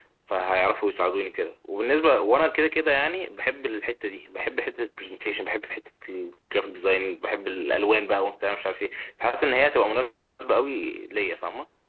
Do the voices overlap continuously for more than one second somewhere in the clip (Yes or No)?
No